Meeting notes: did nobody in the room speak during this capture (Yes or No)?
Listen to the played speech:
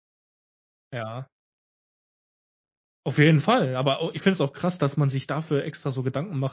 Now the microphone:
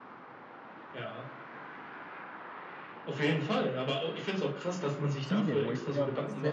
No